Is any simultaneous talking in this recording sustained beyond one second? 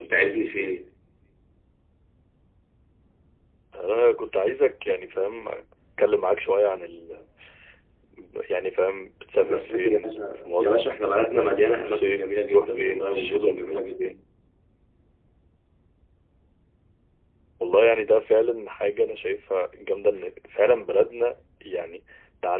Yes, from 9.4 s

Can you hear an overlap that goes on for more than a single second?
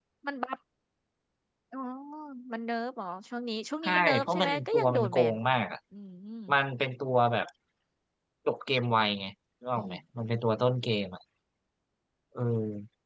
Yes, from 3.8 s

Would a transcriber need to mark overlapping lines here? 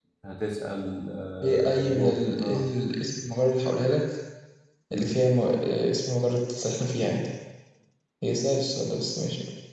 Yes, from 1.4 s

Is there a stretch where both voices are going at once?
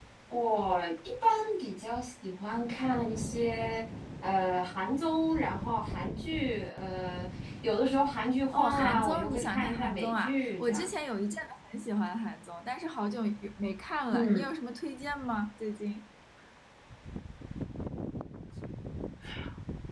Yes, from 8.5 s

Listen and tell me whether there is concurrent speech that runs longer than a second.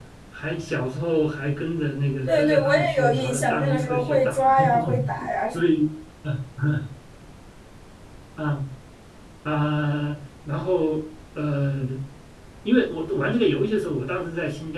Yes, from 2.3 s

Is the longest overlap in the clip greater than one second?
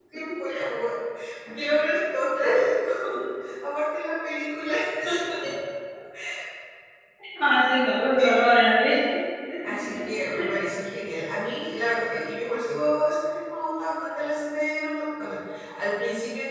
No

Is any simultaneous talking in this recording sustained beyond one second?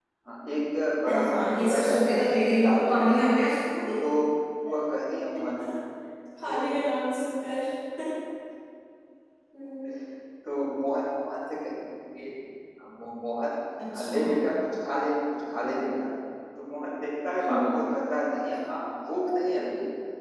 Yes, from 1.0 s

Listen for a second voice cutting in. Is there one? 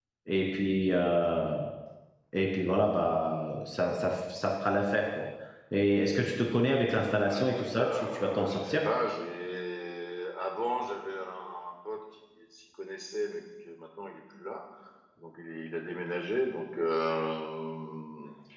Yes, from 7.2 s

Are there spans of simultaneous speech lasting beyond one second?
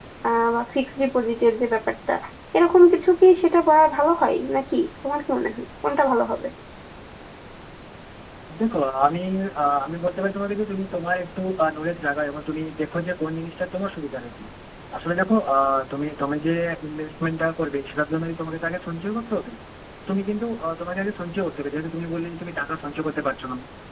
No

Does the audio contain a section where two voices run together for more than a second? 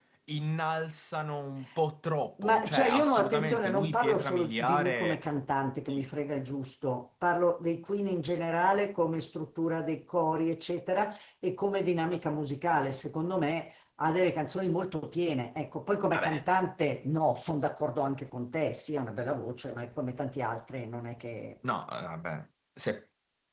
Yes, from 2.4 s

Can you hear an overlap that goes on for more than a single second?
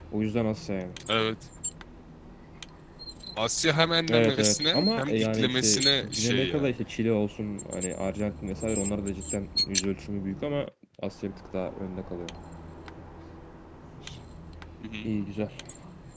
Yes, from 4.1 s

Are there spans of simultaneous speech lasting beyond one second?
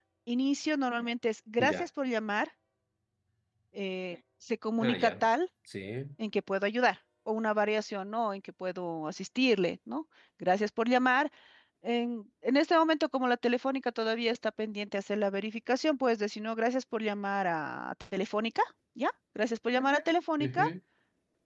No

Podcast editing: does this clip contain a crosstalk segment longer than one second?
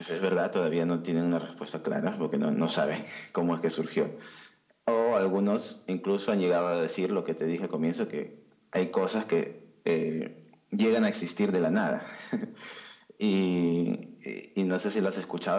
No

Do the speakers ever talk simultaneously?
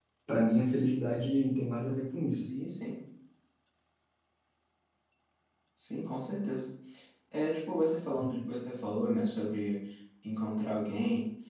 No

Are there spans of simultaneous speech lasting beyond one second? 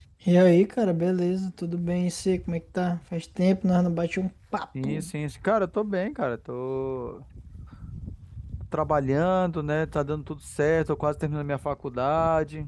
No

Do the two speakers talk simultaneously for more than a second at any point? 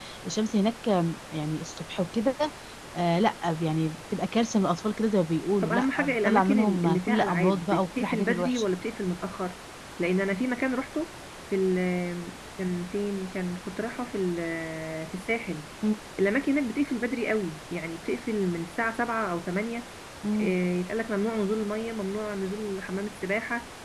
Yes, from 5.6 s

